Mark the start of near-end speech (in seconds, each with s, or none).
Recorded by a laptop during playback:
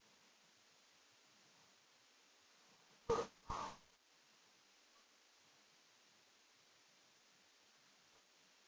none